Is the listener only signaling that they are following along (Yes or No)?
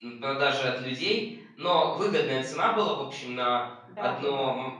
Yes